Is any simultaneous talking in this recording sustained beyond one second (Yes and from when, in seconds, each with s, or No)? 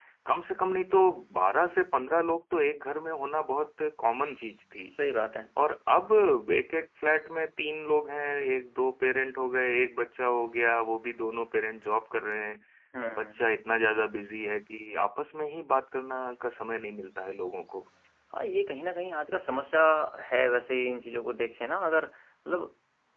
No